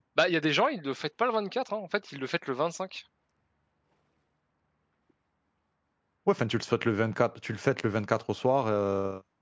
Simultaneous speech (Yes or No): No